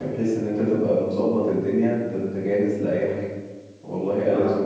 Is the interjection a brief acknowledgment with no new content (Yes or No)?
Yes